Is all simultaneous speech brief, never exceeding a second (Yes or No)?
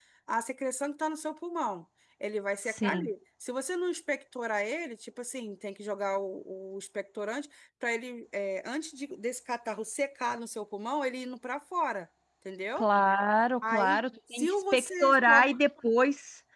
No